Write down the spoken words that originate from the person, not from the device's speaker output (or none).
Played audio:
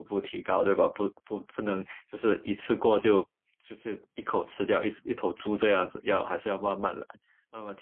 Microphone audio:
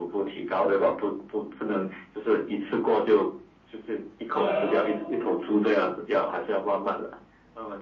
当然喽，